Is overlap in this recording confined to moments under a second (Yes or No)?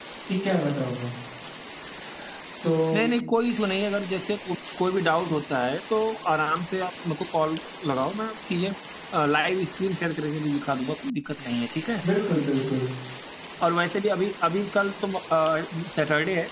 Yes